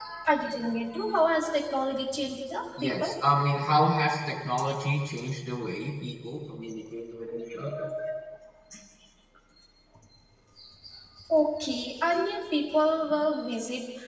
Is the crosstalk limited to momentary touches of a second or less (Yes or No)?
Yes